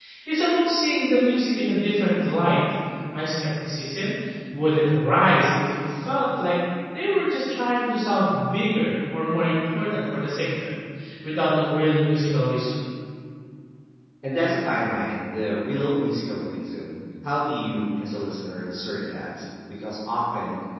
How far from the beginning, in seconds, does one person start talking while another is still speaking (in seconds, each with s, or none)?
none